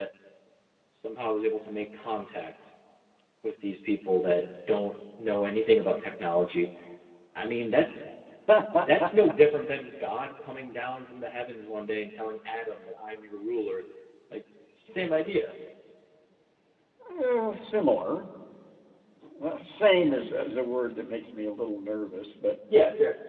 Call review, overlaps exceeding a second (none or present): none